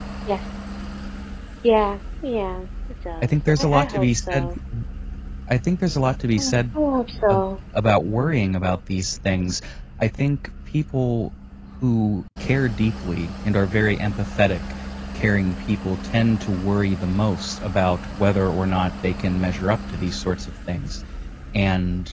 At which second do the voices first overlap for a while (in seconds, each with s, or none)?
3.2 s